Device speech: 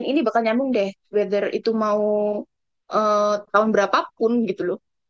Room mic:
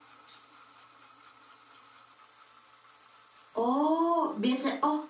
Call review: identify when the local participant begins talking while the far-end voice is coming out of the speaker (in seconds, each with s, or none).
3.5 s